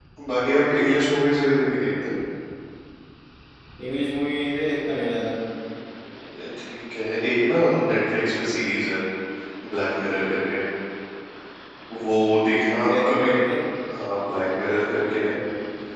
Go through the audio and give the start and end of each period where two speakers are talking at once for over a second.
none

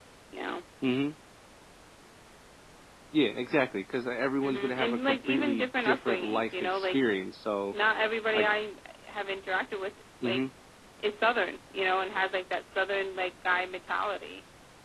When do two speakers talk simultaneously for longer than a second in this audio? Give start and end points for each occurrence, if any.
4.4-7.0

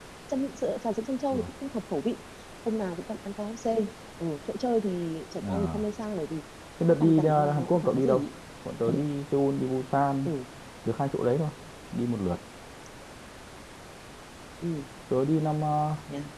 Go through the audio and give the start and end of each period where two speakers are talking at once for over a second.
7.0-8.2

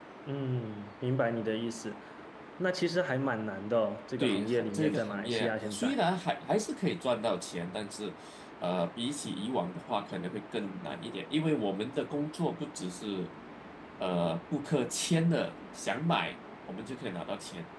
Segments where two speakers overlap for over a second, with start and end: 4.2-6.0

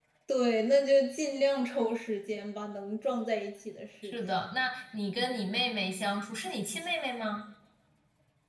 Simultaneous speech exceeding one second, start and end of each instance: none

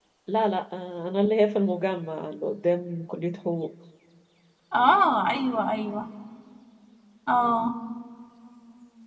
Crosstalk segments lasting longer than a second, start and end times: none

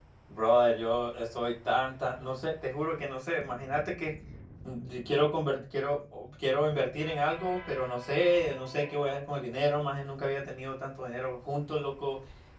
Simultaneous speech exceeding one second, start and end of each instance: none

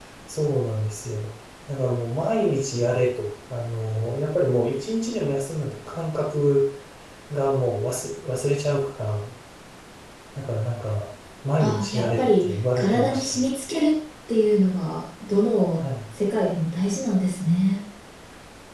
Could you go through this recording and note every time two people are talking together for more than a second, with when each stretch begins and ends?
11.6-13.4

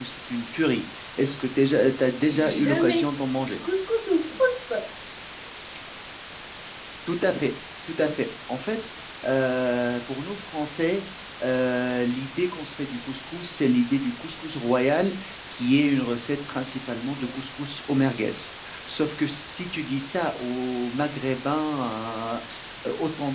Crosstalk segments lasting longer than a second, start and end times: 2.3-3.6

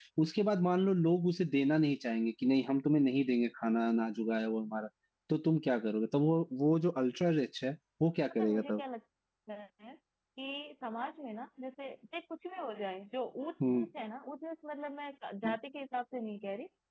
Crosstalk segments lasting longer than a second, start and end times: none

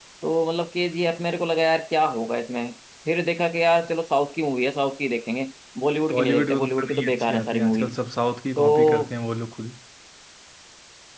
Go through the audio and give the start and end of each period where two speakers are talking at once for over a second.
6.1-7.8

